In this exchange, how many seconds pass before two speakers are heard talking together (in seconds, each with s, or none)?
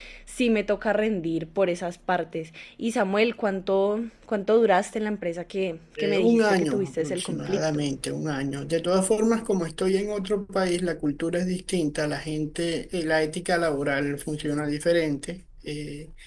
6.0 s